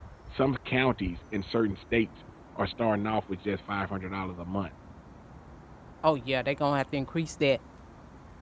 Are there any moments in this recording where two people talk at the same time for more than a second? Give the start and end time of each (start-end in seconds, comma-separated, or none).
none